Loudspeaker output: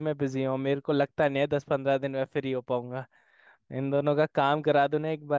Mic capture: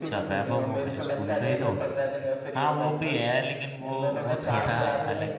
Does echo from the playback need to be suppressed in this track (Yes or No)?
Yes